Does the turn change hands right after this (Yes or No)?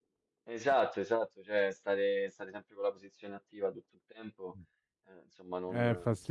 Yes